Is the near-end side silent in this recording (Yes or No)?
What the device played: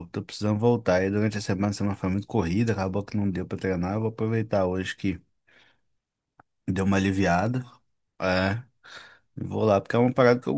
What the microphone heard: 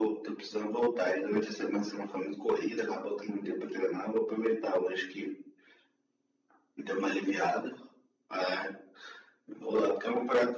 Yes